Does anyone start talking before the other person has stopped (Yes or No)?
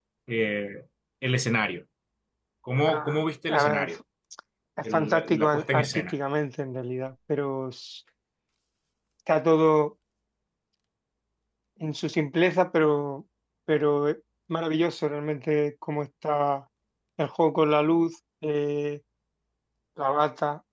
Yes